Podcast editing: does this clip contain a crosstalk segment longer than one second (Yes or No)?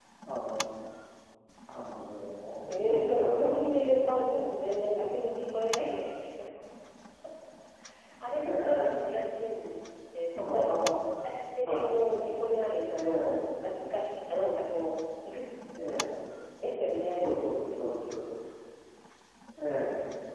Yes